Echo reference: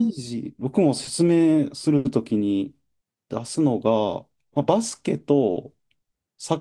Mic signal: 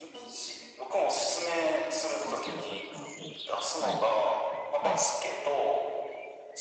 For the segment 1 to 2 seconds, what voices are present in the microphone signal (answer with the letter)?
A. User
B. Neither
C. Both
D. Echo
D